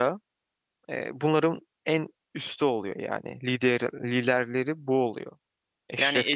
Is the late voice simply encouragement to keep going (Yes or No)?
No